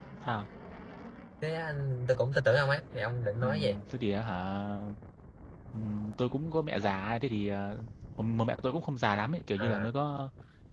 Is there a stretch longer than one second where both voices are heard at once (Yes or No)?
No